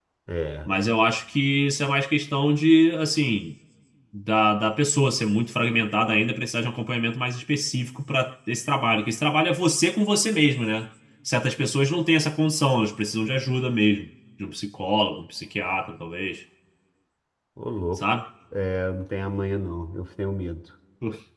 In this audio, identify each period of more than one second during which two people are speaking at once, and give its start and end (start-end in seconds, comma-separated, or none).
none